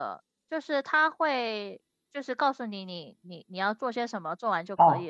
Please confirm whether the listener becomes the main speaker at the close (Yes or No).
Yes